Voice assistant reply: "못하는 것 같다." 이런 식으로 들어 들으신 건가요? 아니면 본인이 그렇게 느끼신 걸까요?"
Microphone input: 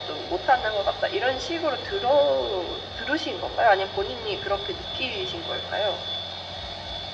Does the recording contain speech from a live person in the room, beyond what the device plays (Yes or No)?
No